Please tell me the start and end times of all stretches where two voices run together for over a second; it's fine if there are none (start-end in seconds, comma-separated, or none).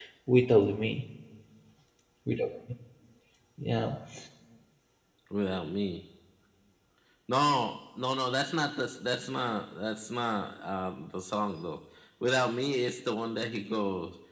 none